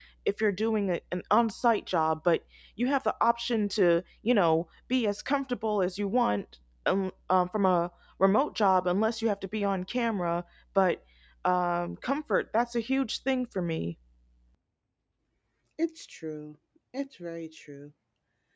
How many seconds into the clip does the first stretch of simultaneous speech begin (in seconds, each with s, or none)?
none